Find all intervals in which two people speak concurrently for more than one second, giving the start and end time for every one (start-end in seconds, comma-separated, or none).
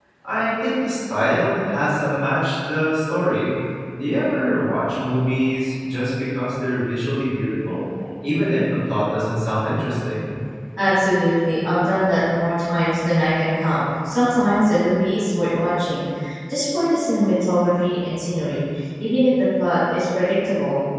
none